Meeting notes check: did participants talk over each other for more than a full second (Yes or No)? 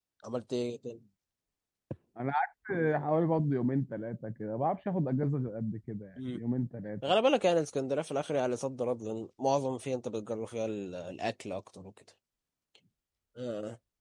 No